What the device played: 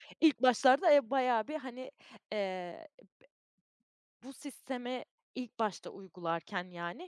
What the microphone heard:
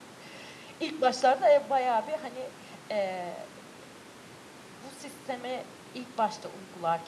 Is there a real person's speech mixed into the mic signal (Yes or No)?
No